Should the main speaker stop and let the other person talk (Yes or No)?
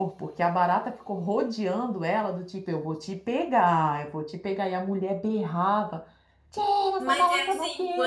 Yes